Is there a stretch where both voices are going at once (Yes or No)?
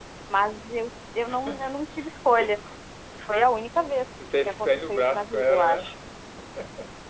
Yes